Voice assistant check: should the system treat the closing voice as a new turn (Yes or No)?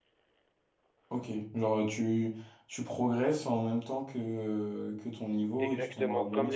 Yes